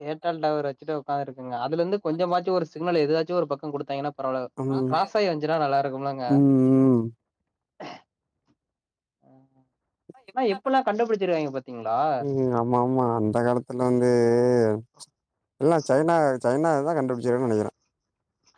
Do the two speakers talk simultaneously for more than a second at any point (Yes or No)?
No